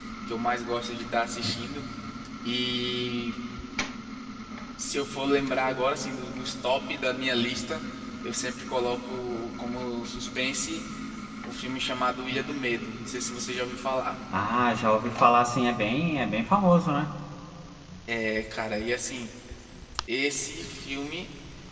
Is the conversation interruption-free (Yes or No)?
Yes